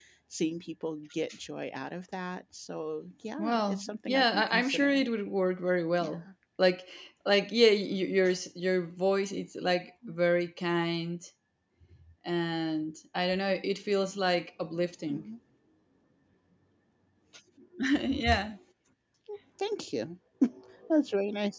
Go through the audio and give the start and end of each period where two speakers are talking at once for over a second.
3.4-5.0

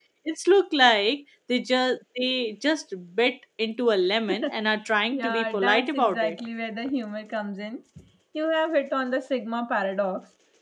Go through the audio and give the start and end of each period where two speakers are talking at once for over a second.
5.1-6.4

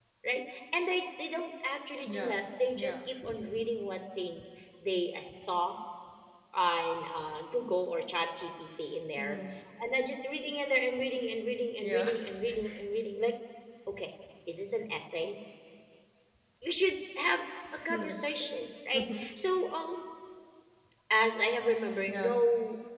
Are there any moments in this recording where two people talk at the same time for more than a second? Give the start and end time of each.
none

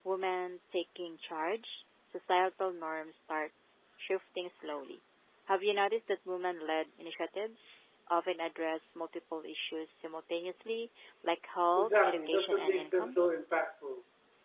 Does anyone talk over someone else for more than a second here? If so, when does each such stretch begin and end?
11.8-13.2

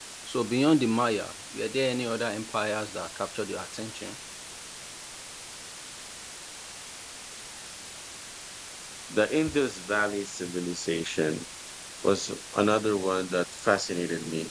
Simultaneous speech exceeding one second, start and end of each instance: none

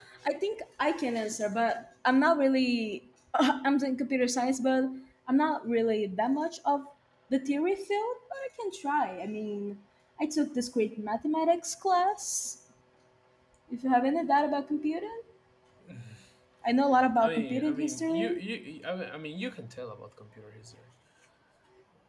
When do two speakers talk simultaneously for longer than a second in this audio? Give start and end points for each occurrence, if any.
17.2-18.4

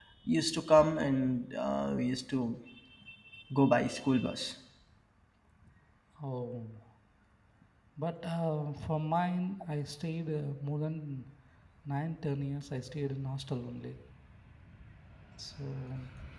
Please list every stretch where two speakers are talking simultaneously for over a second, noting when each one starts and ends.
none

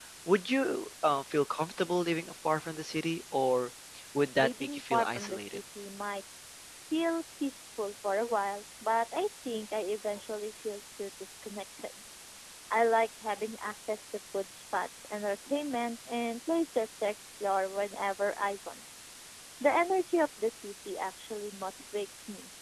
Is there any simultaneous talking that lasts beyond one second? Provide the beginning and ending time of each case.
4.4-5.6

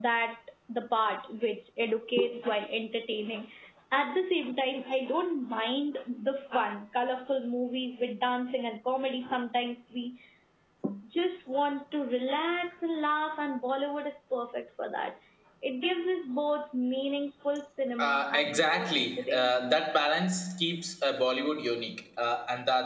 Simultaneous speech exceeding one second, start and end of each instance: 18.0-19.8

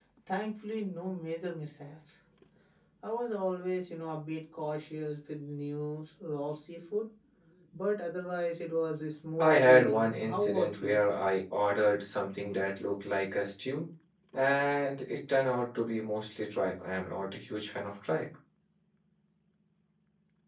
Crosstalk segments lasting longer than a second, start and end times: 9.4-11.0

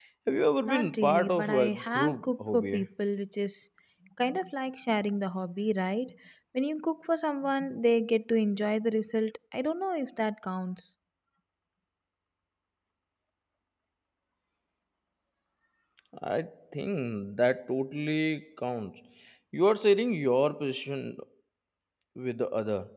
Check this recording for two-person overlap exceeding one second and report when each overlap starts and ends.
0.7-2.8

